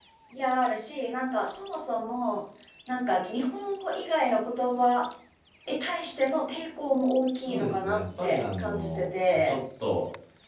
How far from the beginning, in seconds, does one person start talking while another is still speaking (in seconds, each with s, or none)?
7.4 s